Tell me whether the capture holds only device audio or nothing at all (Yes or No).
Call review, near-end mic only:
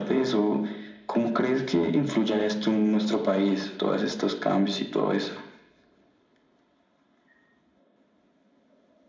Yes